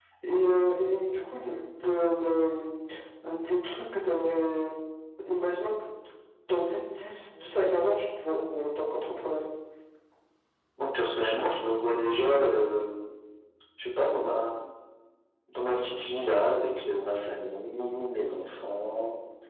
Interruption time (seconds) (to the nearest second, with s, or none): none